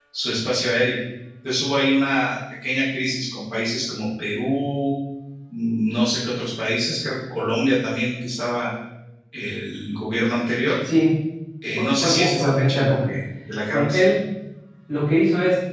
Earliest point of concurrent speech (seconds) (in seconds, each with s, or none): 11.8 s